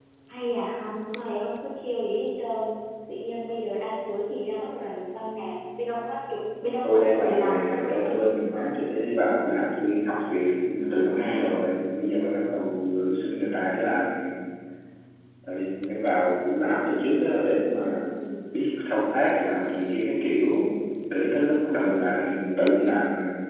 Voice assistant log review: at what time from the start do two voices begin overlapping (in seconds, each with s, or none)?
6.8 s